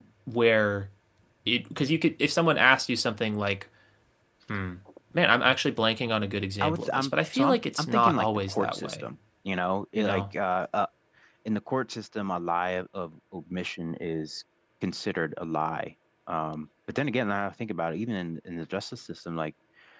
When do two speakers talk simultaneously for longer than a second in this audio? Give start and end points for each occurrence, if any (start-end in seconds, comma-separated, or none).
6.6-9.0